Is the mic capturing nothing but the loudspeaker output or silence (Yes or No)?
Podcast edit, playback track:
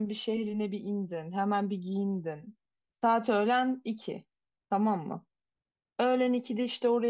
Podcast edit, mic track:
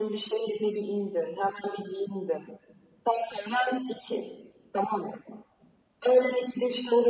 Yes